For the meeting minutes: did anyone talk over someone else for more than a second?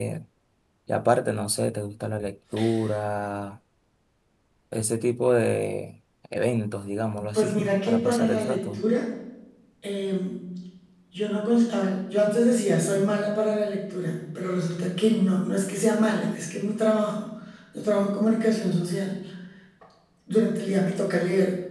Yes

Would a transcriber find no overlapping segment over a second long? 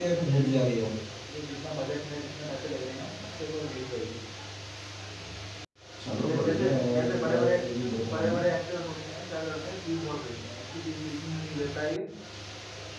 No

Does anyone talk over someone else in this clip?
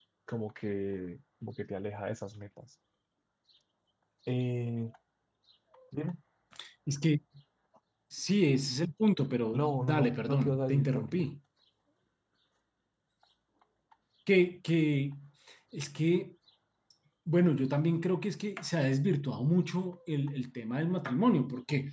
Yes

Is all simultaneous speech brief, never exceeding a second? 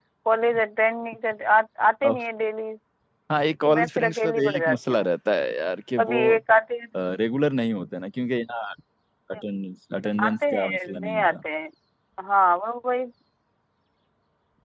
No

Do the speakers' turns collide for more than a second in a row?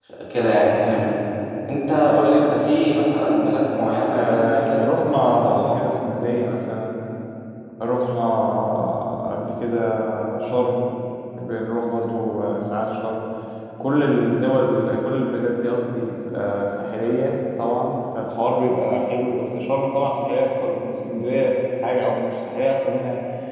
Yes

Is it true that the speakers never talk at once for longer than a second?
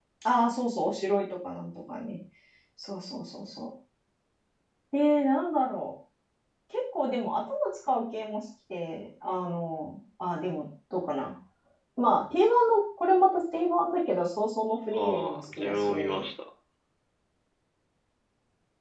No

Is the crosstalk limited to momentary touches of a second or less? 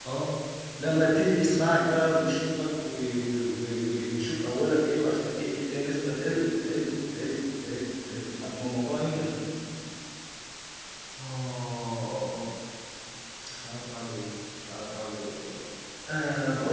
Yes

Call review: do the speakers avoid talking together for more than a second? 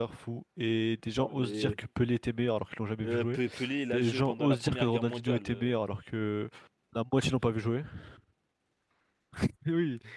No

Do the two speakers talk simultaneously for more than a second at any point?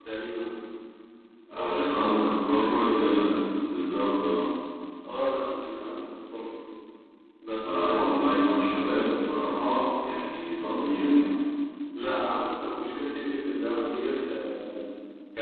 Yes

